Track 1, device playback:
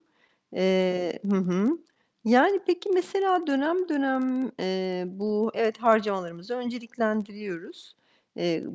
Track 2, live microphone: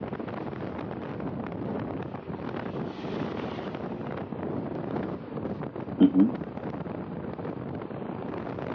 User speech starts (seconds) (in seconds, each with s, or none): 6.0 s